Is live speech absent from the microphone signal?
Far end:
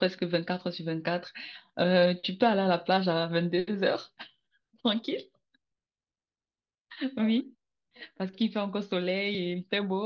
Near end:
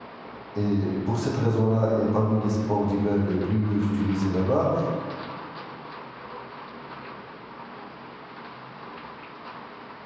No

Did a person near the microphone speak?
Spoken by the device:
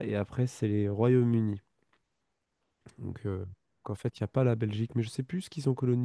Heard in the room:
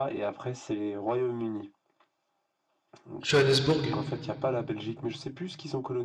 Yes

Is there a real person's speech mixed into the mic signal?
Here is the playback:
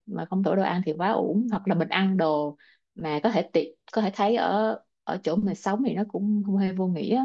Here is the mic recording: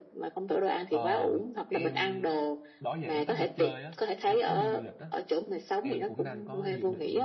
Yes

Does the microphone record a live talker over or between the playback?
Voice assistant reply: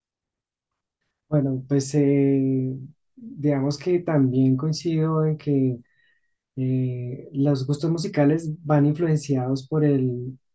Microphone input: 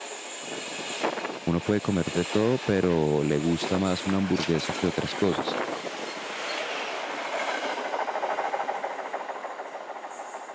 Yes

